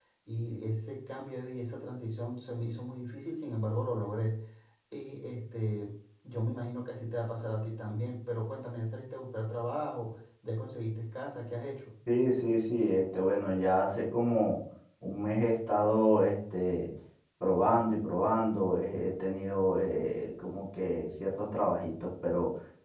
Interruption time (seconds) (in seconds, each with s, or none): none